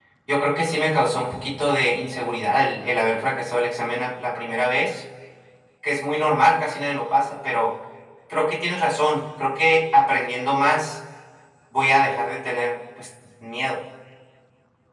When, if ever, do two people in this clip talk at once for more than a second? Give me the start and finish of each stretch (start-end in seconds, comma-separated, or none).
none